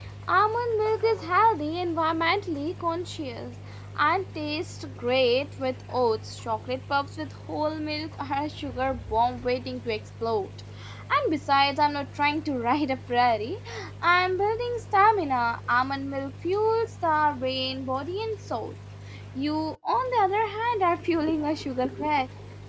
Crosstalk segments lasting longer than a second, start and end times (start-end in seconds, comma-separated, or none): none